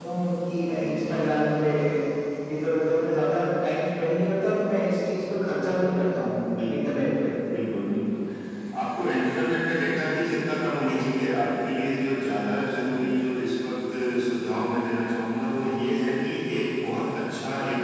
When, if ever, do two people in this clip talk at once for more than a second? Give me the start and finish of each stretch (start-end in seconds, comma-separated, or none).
none